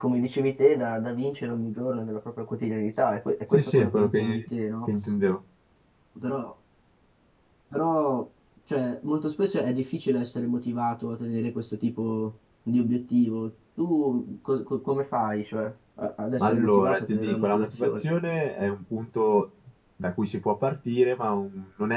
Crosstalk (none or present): present